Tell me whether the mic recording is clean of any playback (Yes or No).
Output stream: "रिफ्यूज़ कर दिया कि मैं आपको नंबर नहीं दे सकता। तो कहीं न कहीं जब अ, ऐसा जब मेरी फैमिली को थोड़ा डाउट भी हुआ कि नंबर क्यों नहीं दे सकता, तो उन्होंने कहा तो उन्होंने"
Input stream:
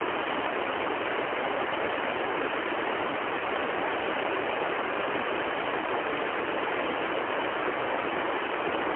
Yes